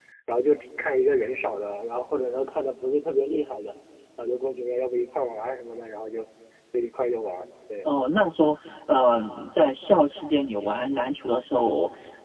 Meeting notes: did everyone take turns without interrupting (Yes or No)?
Yes